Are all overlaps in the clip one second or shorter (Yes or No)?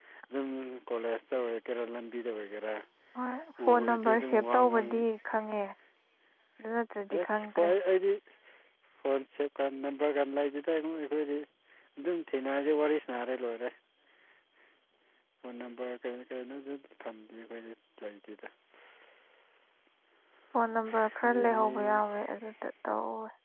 No